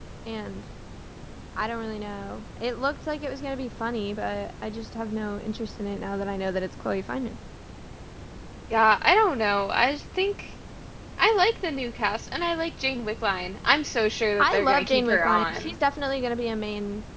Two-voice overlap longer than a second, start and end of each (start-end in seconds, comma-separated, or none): 14.4-15.7